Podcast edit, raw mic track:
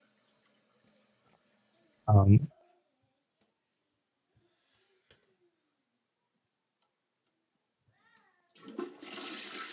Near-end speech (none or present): present